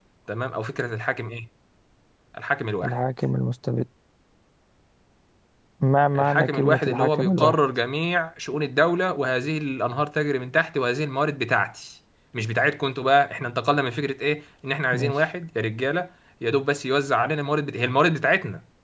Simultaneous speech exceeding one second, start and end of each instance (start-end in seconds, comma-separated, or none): 6.2-7.6